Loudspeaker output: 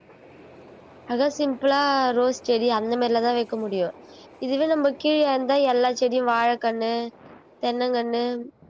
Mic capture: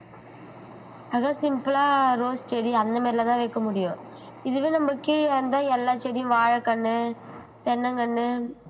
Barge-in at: none

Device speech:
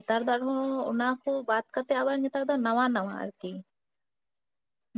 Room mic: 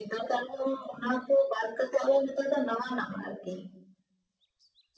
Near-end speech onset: none

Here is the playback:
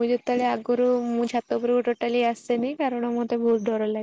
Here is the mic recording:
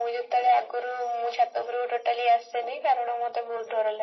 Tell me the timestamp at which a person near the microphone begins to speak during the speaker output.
none

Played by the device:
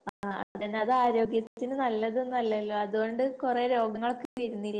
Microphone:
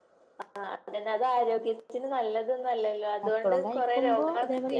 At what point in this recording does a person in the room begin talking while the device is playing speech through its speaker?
3.3 s

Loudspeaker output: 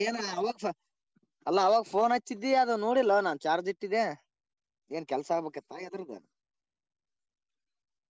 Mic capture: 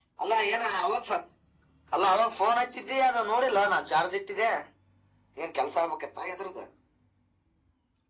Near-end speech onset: none

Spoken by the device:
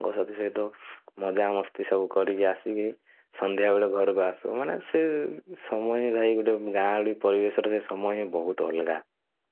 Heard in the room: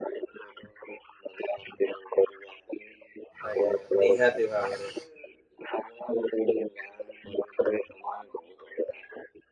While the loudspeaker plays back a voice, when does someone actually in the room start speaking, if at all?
3.5 s

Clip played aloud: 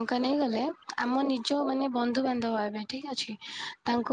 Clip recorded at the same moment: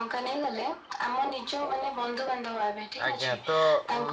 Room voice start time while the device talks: 3.1 s

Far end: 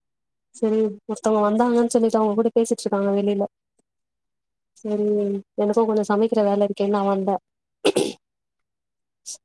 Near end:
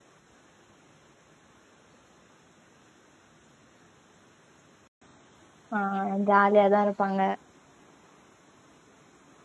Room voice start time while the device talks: 5.8 s

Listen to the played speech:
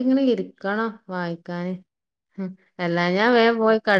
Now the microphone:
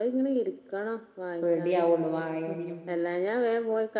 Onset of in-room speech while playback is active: 1.4 s

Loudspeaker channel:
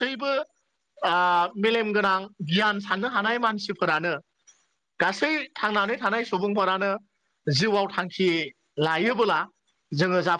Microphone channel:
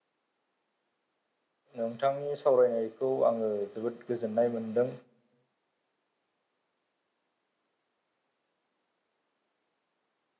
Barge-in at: 1.8 s

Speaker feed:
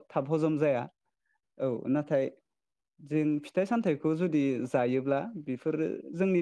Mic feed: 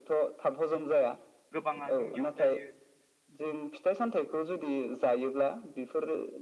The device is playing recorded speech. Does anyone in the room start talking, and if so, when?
1.6 s

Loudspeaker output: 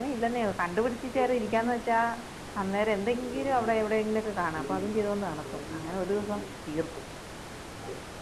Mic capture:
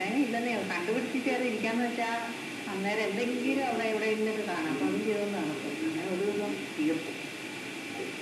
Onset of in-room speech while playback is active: none

